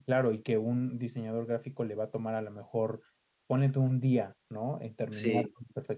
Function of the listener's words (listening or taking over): listening